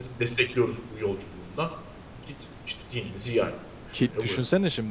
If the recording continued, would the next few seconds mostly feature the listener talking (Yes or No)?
Yes